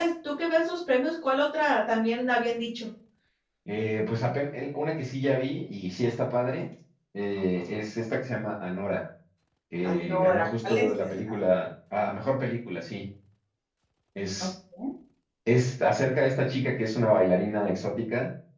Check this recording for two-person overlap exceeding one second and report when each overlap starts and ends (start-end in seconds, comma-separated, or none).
9.8-11.1